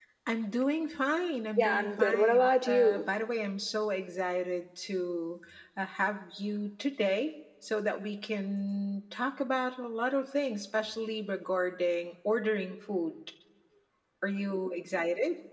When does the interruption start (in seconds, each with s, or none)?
1.6 s